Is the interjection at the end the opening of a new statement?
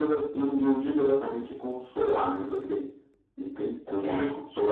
No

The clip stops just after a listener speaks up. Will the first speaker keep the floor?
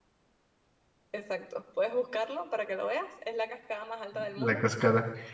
No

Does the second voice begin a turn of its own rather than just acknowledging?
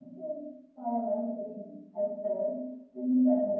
No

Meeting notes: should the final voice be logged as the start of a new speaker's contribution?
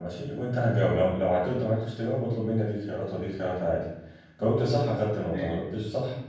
No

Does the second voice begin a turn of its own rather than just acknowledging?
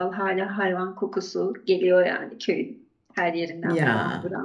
No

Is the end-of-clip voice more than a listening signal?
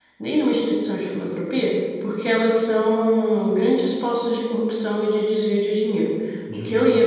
No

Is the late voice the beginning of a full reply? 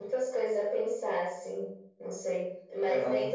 No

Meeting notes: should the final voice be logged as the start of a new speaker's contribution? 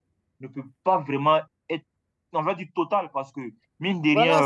Yes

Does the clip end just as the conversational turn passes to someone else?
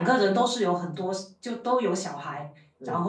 No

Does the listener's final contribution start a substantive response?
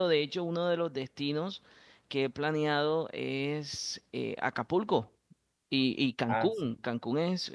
No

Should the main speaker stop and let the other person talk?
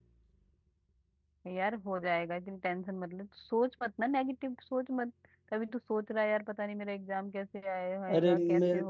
Yes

